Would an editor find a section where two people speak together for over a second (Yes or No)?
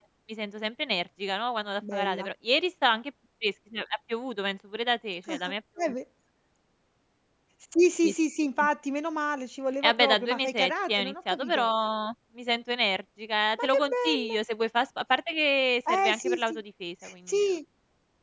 Yes